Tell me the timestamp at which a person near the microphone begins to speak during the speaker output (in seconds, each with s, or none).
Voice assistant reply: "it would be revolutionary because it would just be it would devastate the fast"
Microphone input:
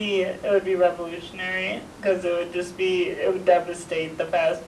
none